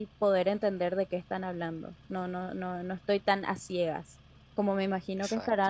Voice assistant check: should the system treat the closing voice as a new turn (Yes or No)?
No